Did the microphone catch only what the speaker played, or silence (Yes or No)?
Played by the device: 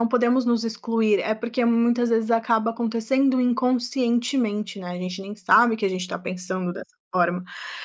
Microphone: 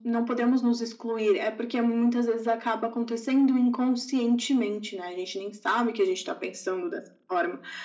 Yes